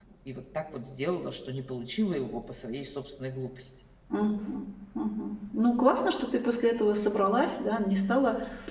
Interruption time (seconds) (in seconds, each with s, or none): none